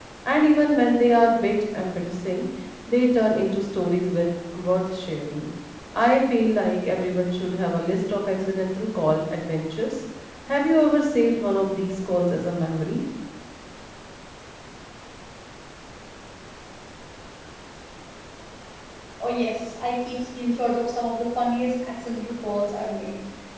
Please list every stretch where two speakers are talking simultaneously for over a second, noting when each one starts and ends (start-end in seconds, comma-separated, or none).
none